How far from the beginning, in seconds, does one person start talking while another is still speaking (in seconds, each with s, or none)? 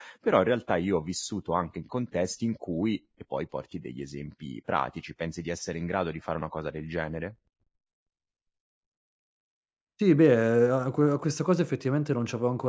none